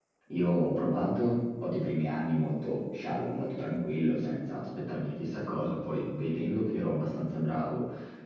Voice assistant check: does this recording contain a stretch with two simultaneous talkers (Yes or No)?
No